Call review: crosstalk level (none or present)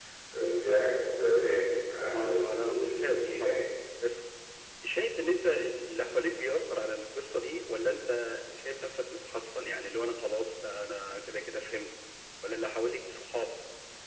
present